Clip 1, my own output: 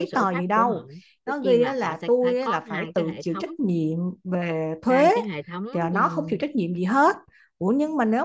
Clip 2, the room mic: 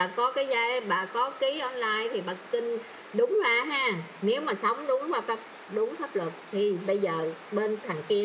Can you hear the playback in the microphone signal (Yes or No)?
No